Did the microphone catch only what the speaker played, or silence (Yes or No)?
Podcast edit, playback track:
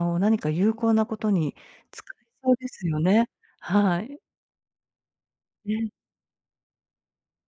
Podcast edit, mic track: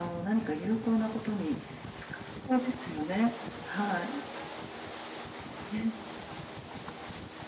Yes